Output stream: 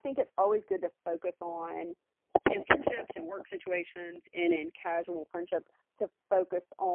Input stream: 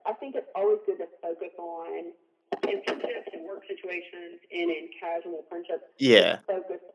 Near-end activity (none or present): present